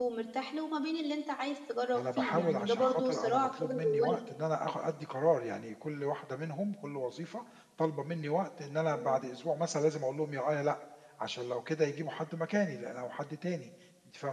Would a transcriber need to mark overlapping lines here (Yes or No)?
Yes